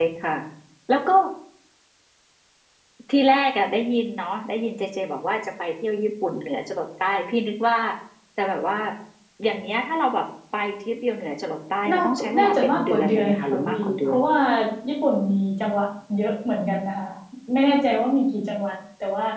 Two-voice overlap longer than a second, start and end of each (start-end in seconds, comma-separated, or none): 12.4-14.2